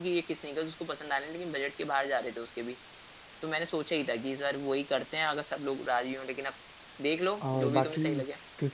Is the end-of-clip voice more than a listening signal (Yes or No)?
Yes